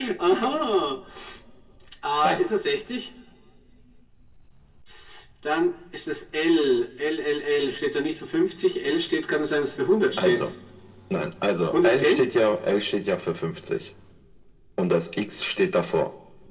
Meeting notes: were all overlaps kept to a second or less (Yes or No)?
Yes